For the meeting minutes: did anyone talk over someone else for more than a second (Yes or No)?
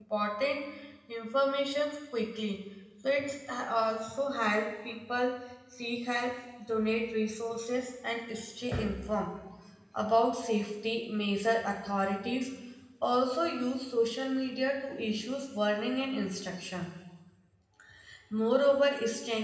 No